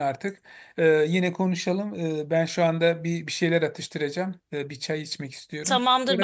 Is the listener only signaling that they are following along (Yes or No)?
No